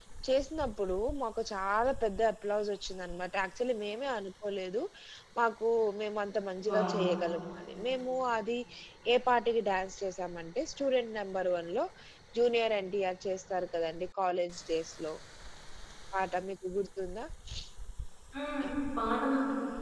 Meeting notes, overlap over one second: none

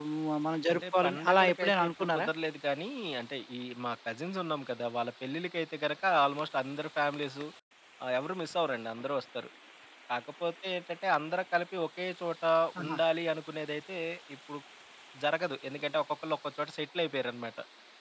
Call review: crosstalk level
present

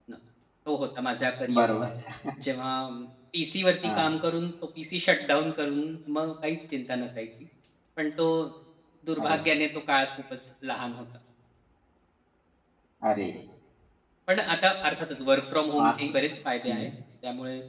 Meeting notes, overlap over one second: none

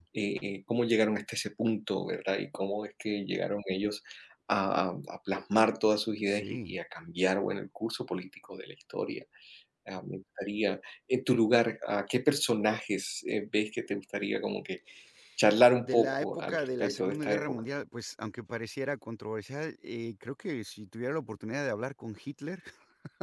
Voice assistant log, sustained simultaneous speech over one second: present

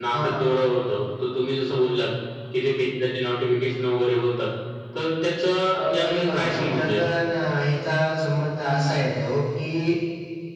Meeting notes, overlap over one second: present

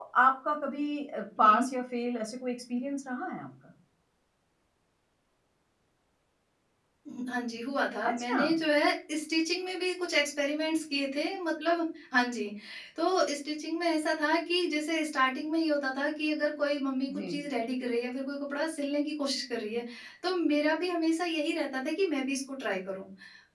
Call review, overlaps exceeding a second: none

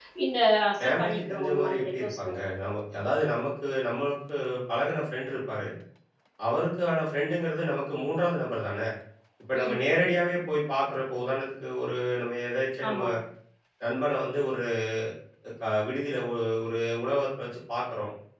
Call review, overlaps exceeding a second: present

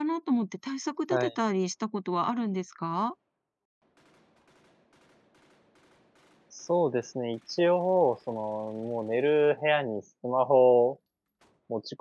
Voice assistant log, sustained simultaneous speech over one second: none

